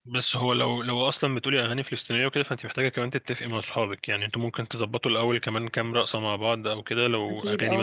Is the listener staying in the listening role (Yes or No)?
Yes